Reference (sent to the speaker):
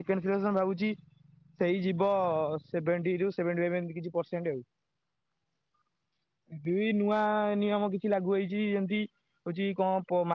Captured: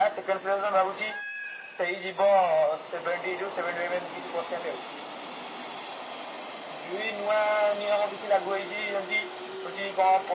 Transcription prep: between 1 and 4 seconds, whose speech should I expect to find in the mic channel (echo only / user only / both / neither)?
echo only